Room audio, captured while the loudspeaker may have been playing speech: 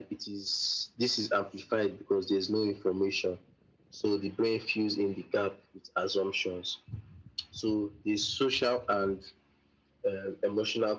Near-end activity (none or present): none